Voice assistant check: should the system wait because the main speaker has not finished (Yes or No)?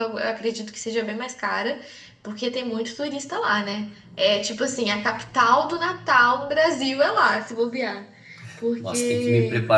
No